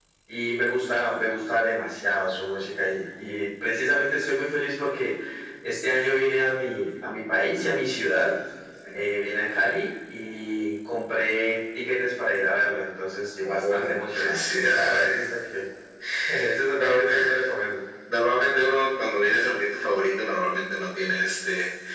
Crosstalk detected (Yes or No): Yes